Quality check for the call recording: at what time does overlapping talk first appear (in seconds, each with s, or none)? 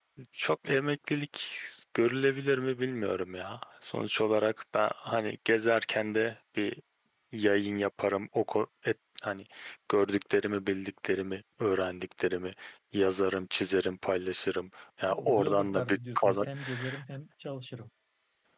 15.1 s